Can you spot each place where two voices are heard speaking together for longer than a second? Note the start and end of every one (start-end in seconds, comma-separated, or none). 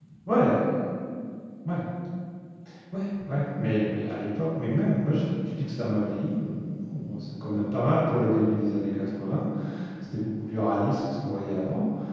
none